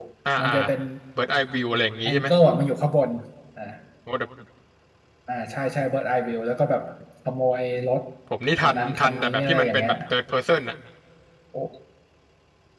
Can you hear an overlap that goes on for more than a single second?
Yes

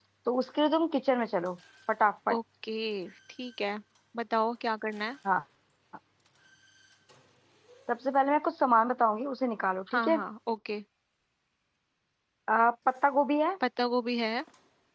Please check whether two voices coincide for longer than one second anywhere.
No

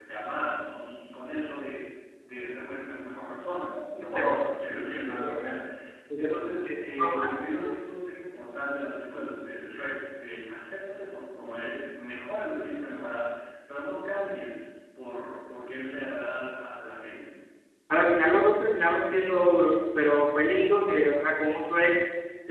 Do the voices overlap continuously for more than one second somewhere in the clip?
Yes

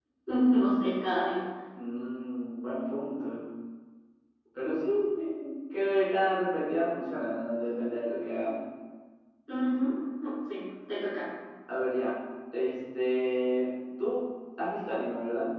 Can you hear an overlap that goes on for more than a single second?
No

